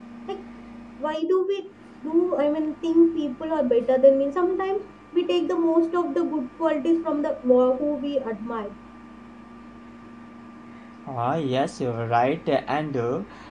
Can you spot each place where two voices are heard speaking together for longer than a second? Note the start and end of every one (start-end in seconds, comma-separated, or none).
none